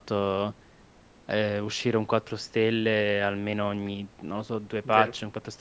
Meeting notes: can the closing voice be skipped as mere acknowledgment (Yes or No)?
Yes